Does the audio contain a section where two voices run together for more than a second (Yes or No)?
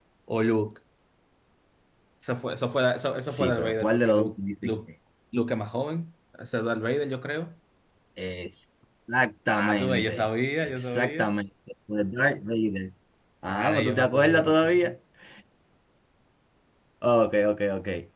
Yes